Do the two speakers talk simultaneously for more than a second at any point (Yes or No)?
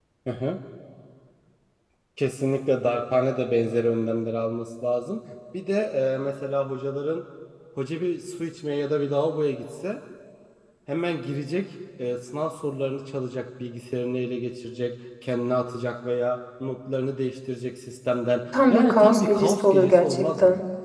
Yes